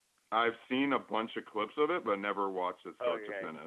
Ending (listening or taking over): taking over